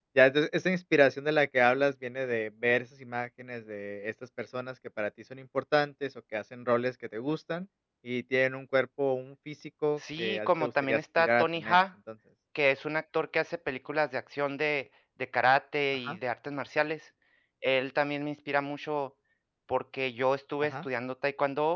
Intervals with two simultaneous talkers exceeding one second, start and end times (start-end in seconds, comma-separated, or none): 10.0-11.8